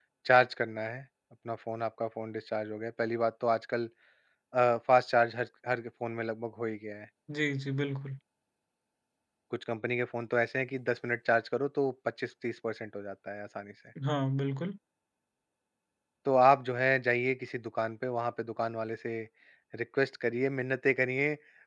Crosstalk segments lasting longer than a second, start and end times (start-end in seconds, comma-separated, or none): none